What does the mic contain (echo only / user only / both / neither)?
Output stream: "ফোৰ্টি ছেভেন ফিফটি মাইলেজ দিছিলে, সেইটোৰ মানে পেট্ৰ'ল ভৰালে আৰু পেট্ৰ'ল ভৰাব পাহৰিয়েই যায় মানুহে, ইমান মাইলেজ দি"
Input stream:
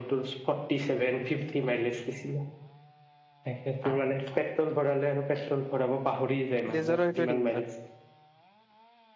both